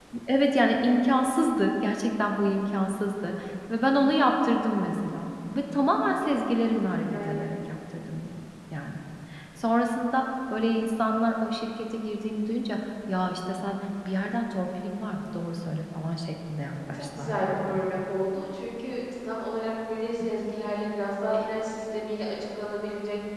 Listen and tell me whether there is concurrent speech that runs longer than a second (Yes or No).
Yes